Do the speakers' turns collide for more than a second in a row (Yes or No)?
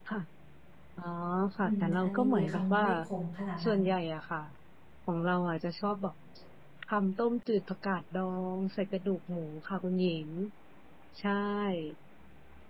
Yes